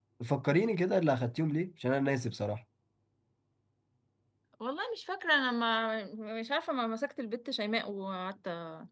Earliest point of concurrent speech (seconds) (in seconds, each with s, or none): none